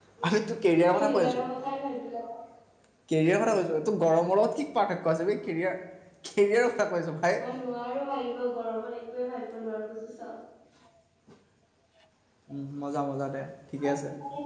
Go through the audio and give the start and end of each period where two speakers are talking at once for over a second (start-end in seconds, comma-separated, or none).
none